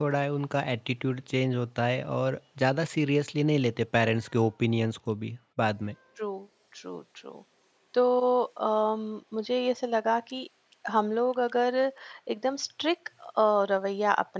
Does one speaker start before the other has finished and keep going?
No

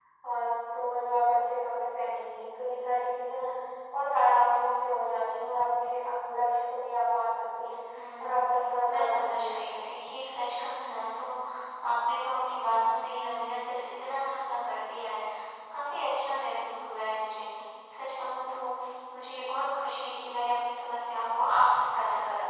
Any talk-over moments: Yes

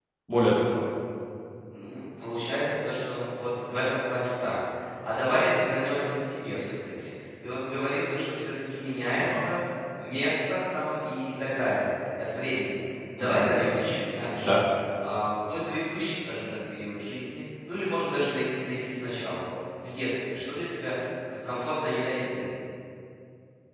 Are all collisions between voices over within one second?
Yes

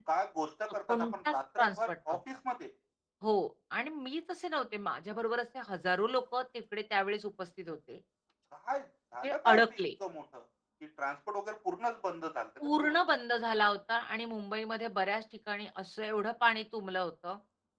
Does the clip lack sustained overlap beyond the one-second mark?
No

